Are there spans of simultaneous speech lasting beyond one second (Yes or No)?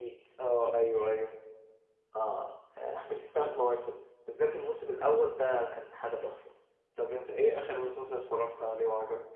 No